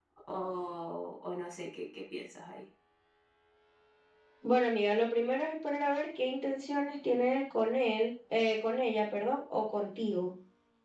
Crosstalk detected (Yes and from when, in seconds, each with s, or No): No